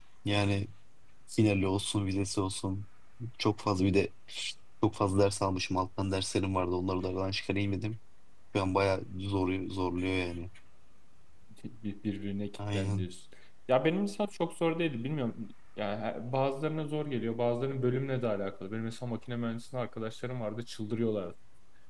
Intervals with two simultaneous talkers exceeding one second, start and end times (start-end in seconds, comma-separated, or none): none